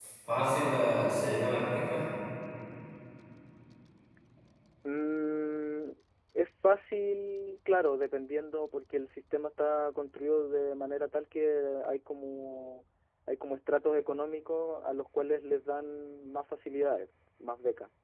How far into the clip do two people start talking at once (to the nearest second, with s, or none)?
none